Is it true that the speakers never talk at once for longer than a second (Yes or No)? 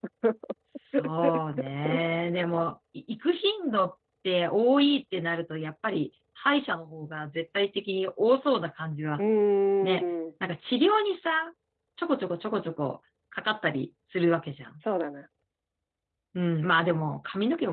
Yes